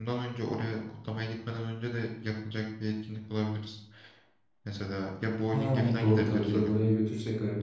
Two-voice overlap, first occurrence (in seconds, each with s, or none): 5.5 s